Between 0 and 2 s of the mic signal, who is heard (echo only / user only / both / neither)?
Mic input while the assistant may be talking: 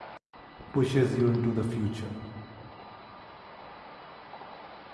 user only